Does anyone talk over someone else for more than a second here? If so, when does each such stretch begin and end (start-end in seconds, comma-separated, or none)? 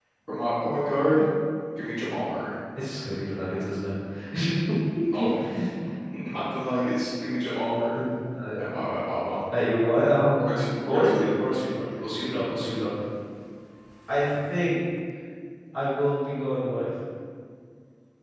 10.8-12.8